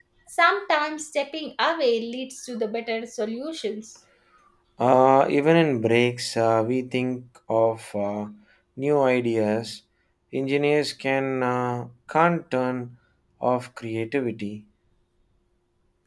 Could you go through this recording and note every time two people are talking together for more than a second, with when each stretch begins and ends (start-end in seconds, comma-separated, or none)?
none